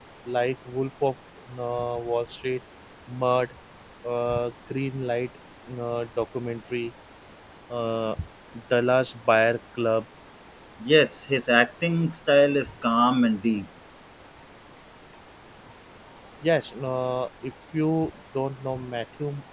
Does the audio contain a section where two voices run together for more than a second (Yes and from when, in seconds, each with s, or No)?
No